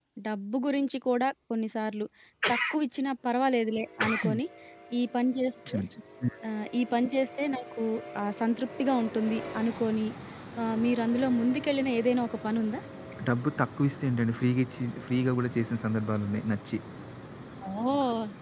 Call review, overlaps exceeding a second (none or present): none